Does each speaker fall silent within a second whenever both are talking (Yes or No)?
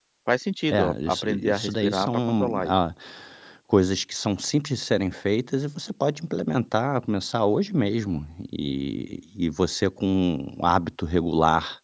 No